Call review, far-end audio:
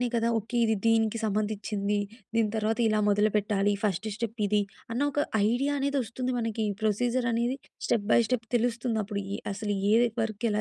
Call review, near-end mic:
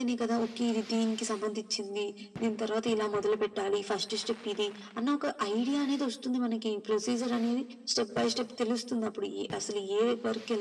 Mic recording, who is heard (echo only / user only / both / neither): echo only